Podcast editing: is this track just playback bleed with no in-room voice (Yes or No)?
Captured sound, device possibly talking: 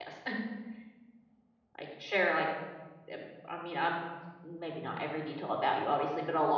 No